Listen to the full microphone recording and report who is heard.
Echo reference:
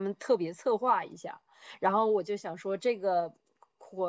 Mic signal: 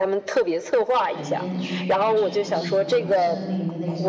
both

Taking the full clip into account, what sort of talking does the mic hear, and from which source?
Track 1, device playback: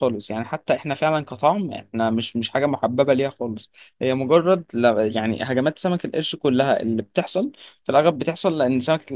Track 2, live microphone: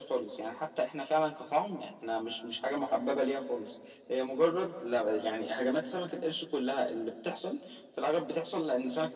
echo only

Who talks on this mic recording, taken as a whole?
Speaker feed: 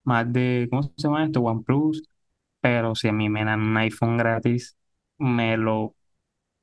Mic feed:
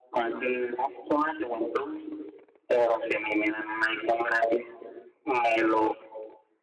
echo only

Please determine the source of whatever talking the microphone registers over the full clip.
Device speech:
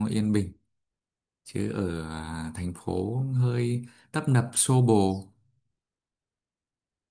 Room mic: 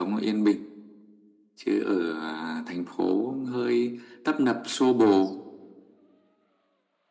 echo only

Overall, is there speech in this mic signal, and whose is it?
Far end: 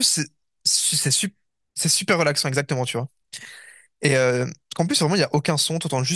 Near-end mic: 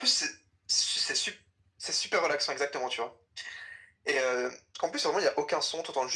echo only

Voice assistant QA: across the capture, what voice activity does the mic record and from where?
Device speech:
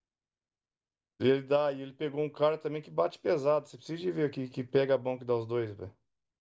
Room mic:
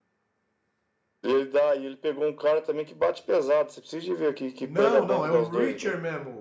both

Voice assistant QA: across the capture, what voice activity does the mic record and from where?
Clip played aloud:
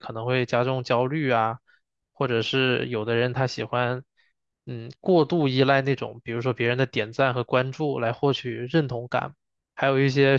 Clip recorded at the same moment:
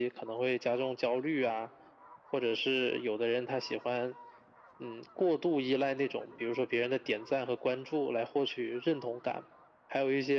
echo only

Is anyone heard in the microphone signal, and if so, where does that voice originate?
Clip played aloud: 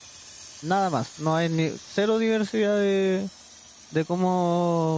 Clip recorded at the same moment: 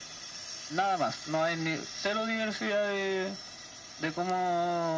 echo only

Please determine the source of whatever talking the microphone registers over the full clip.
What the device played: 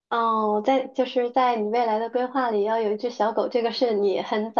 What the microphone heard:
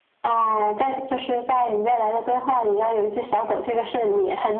echo only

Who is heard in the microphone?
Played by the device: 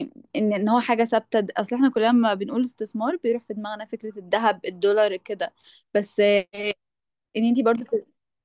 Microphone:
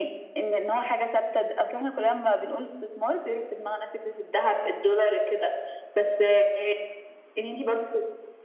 echo only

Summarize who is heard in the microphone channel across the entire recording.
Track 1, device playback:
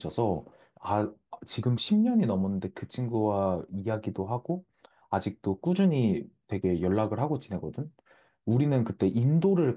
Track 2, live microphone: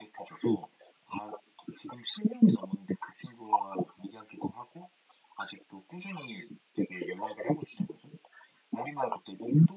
echo only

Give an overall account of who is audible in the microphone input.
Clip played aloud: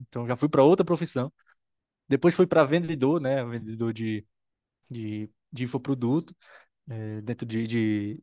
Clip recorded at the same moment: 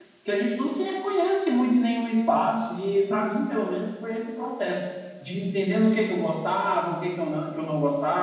user only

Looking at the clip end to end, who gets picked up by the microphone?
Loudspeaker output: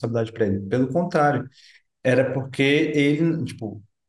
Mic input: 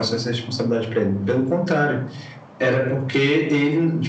echo only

